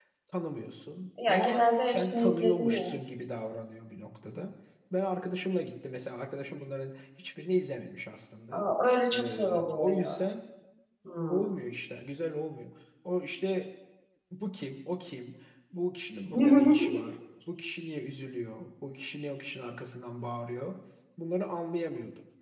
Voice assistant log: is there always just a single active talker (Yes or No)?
No